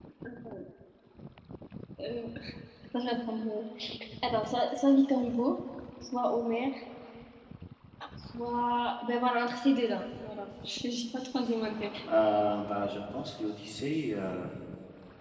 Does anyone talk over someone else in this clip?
No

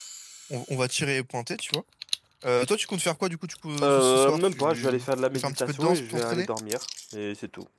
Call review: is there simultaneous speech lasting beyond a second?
Yes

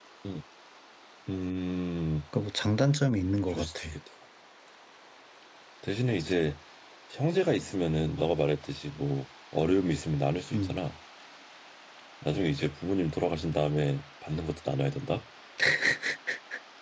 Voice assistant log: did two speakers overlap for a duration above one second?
No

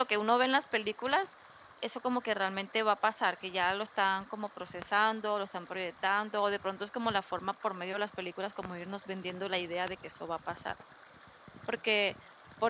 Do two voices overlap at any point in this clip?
No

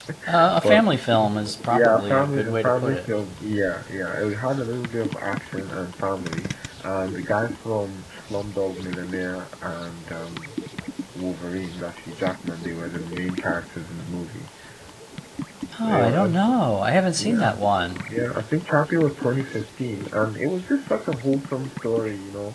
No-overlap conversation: No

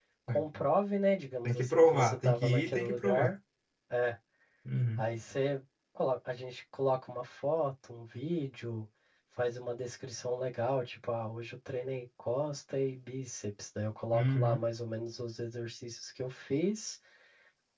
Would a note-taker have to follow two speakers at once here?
Yes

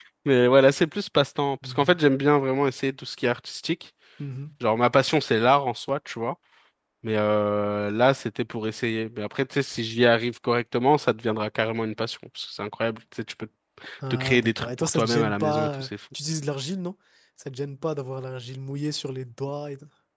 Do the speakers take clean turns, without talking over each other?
No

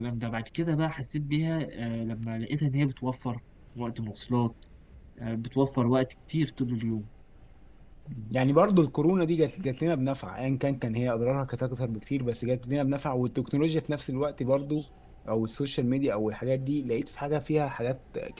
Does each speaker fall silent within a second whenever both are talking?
Yes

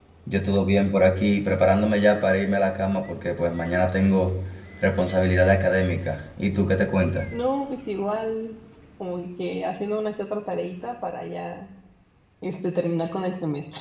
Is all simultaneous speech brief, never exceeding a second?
Yes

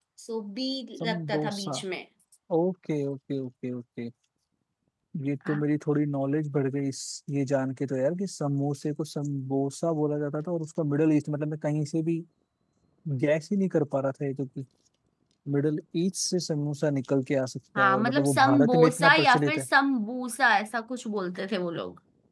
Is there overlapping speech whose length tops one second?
Yes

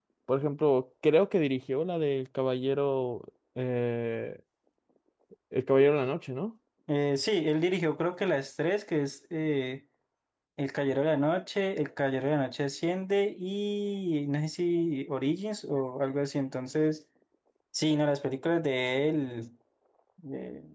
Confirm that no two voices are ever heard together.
Yes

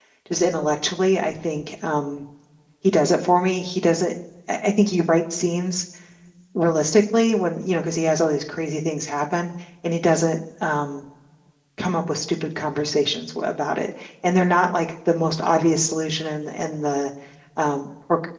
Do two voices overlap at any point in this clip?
No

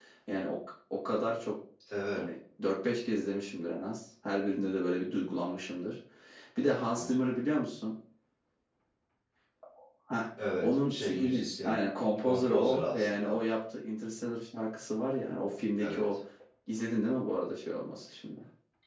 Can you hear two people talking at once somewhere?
Yes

